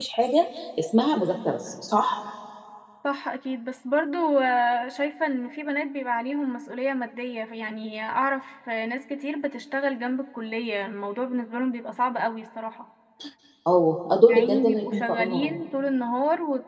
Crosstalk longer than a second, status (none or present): present